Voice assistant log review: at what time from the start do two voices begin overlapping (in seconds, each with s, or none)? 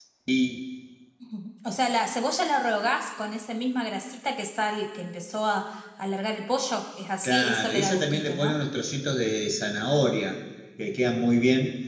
7.2 s